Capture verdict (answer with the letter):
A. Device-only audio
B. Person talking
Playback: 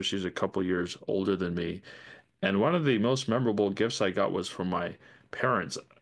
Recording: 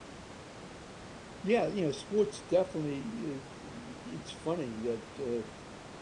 B